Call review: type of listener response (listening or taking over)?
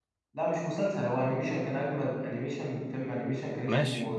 listening